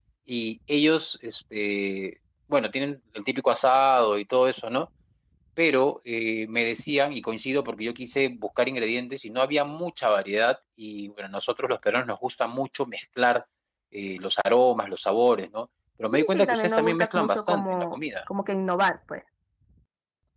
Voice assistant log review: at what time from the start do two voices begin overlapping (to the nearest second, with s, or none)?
16 s